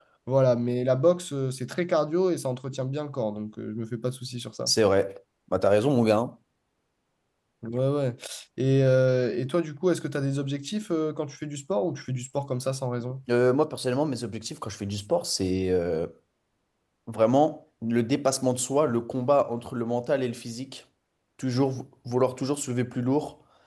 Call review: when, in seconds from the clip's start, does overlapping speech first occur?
none

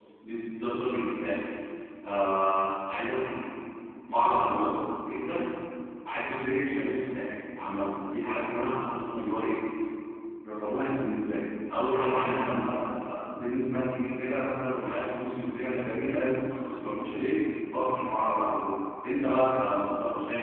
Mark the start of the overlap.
none

